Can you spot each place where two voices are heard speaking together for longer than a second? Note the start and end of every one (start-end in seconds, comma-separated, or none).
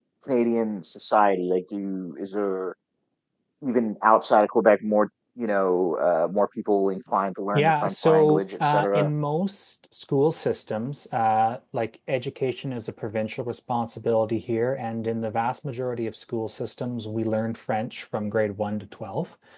7.5-9.1